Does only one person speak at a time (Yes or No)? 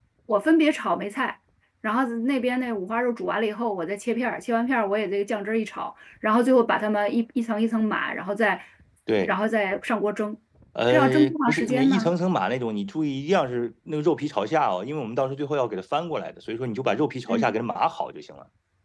No